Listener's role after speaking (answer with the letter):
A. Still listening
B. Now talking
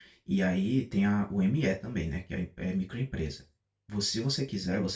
A